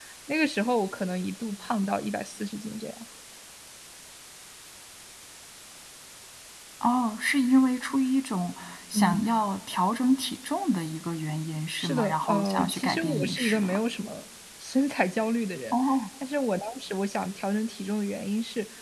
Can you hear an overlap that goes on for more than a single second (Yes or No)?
Yes